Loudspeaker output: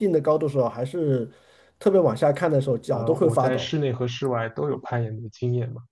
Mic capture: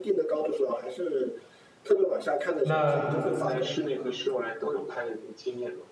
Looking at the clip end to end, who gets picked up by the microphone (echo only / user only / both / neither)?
both